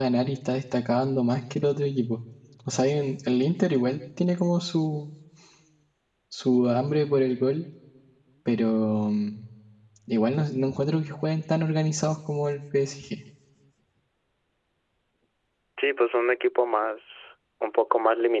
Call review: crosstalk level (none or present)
none